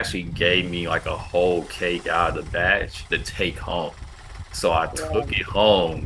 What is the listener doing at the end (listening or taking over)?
listening